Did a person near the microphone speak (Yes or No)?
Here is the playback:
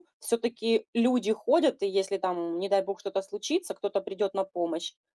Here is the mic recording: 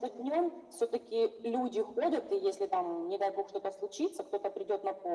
No